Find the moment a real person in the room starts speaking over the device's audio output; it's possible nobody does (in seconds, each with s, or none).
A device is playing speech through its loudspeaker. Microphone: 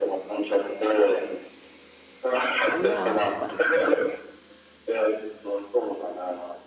2.7 s